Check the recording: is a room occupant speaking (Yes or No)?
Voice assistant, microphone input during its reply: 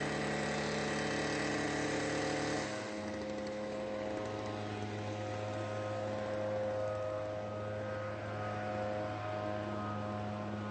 No